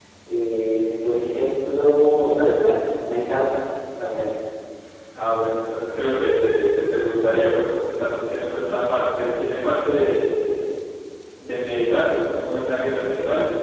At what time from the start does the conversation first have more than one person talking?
none

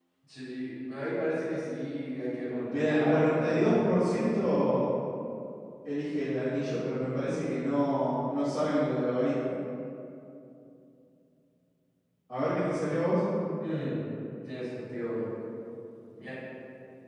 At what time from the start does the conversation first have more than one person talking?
3 s

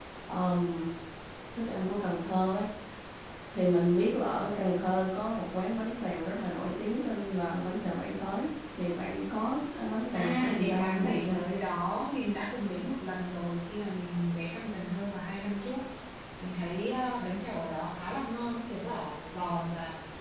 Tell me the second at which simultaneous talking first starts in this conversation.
10 s

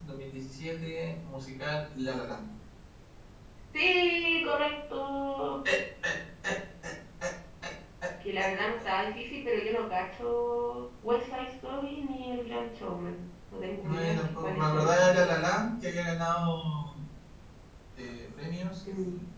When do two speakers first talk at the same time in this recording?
14 s

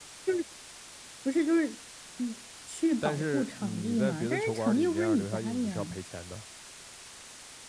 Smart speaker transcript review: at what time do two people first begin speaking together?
3 s

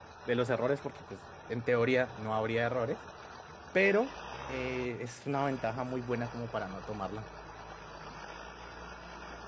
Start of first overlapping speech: none

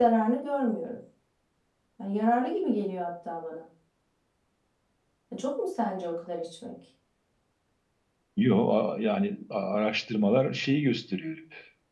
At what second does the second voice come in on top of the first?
none

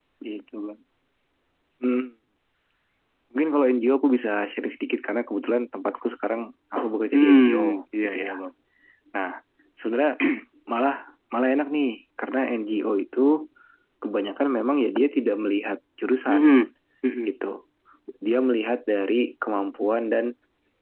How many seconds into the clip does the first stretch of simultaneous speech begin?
7 s

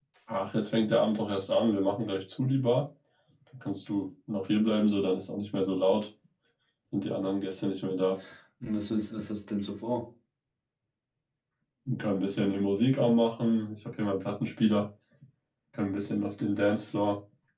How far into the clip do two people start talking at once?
none

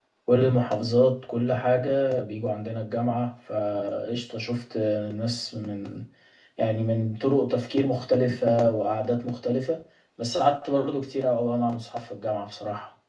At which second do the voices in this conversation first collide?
none

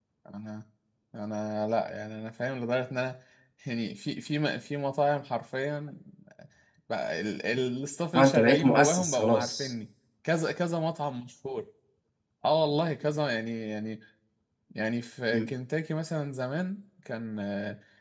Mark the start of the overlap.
8 s

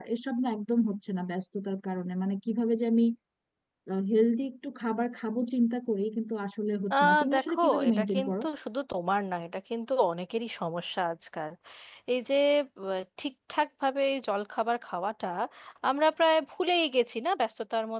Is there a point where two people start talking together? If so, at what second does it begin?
7 s

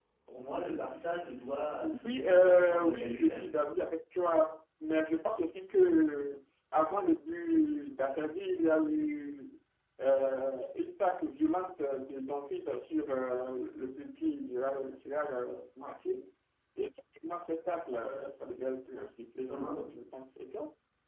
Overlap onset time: 2 s

